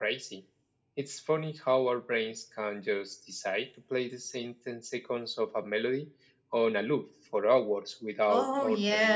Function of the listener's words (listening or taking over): taking over